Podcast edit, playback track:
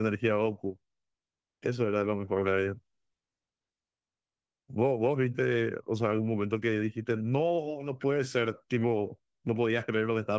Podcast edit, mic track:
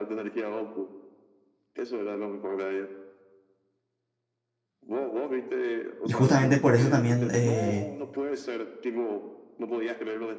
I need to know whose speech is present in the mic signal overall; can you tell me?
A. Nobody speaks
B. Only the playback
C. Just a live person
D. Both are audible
D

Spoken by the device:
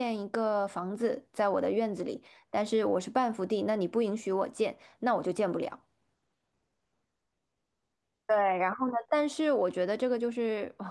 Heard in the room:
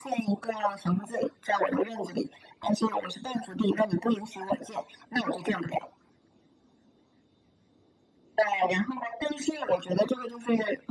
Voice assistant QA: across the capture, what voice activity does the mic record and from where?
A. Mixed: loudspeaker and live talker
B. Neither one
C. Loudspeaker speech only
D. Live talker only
C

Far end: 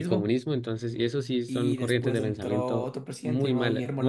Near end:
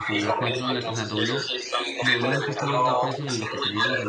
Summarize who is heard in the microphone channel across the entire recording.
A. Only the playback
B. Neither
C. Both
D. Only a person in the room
C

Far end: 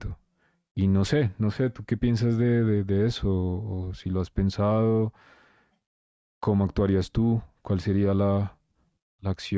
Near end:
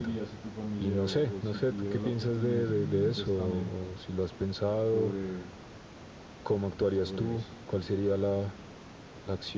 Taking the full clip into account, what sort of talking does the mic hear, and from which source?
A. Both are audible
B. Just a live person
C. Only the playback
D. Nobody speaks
A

